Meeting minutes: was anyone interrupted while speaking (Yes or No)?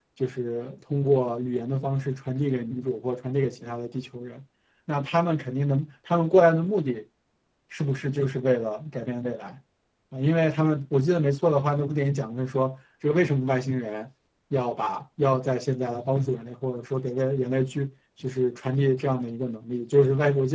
No